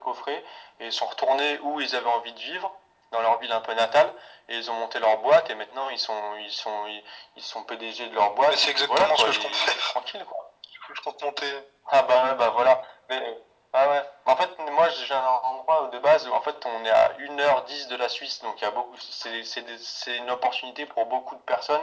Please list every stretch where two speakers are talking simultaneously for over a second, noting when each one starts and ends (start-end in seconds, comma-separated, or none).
8.5-9.9